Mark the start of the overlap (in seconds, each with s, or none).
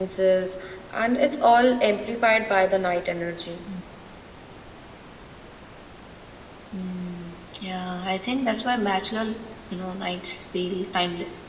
none